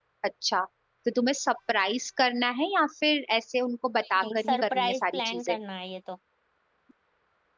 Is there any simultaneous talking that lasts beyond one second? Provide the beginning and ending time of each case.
4.2-5.6

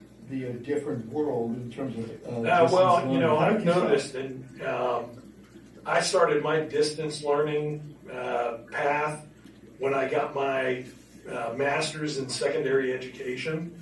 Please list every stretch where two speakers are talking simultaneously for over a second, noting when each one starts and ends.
2.4-4.0

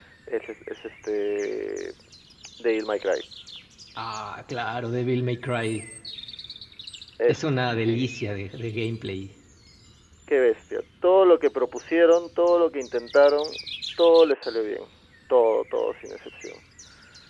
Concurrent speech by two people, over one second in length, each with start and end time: none

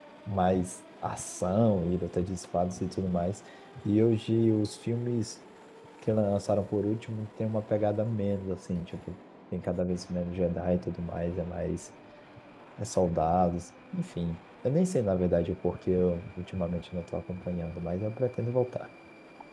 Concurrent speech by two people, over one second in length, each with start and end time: none

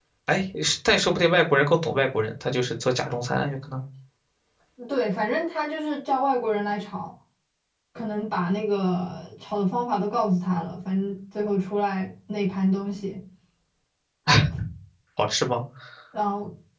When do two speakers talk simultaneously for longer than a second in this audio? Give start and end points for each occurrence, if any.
none

